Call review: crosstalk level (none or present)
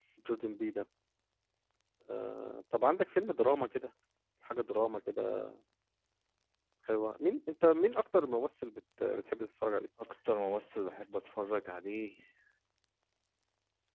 none